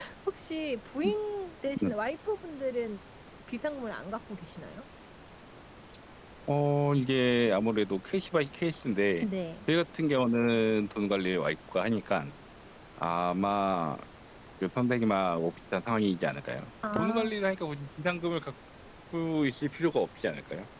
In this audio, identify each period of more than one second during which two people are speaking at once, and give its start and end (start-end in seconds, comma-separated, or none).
none